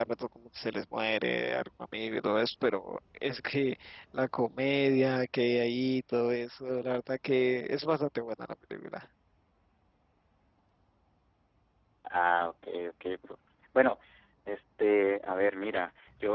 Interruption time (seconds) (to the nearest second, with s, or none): none